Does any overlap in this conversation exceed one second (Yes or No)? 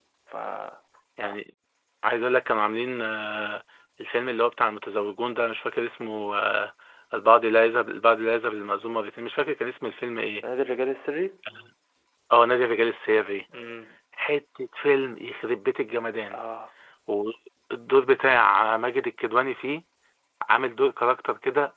No